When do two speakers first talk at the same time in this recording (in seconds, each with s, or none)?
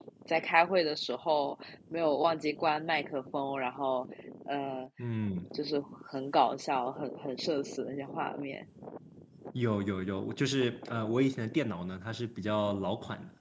none